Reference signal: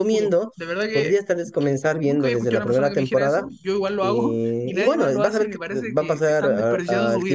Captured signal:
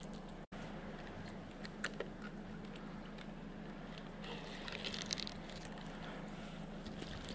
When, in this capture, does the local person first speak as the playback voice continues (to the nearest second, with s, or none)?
none